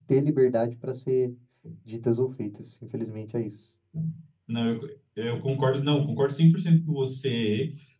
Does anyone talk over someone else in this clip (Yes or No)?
No